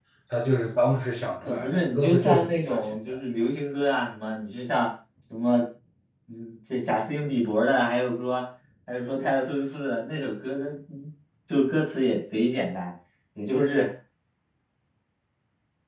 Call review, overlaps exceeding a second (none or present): present